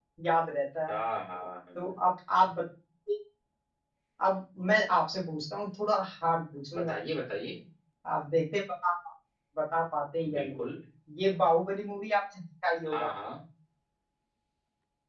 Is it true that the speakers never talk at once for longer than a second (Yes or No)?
Yes